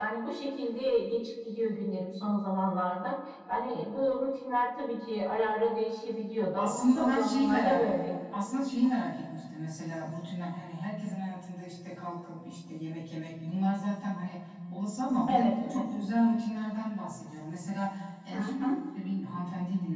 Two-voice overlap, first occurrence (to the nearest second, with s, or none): 7 s